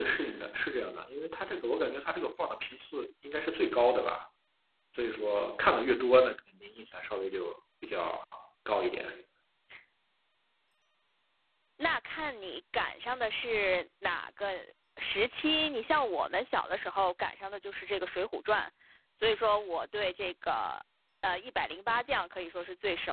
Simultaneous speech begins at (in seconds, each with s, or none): none